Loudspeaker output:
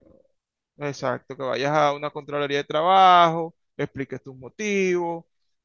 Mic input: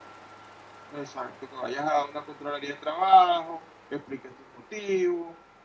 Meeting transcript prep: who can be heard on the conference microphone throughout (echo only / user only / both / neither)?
echo only